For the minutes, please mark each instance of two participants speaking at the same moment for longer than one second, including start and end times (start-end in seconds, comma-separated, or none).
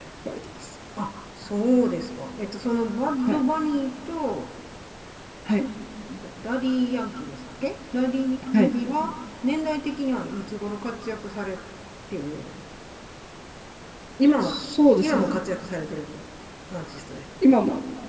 none